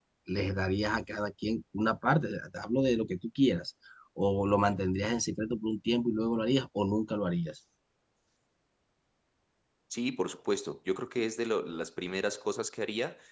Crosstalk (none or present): none